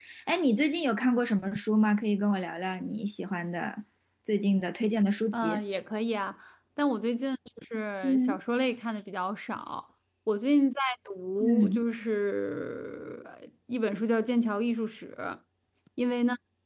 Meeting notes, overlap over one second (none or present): none